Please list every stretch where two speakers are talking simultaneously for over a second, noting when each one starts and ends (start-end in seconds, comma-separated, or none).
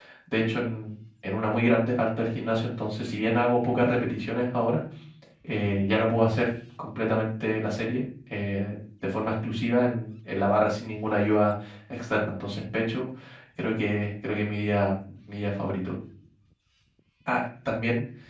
none